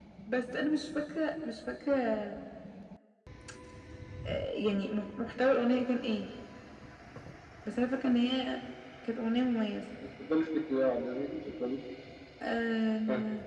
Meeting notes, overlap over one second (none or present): none